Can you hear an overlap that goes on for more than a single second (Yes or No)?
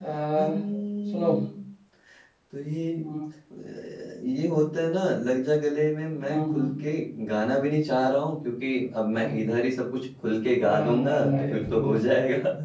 Yes